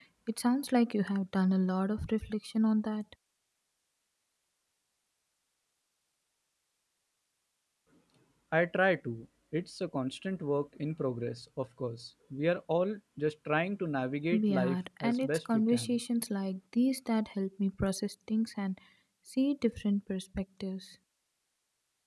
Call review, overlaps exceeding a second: present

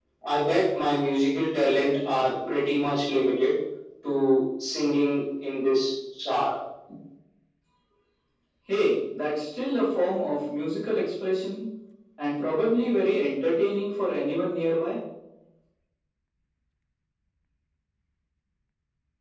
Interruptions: none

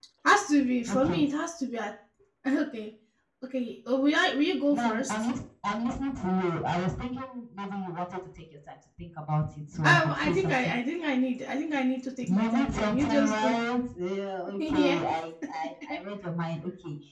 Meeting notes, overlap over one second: present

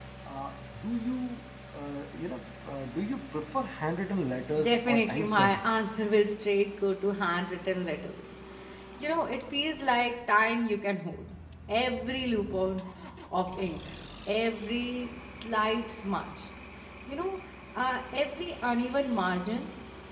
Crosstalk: present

